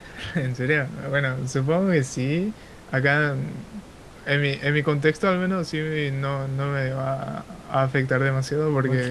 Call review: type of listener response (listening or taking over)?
listening